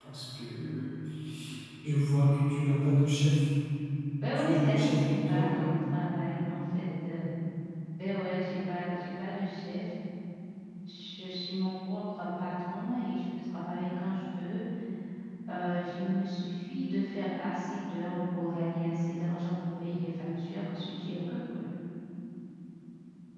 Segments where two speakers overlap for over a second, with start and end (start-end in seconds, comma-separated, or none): 4.3-5.7